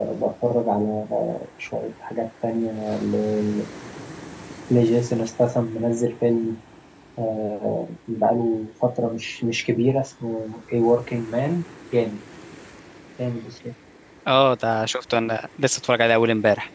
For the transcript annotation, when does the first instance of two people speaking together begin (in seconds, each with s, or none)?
none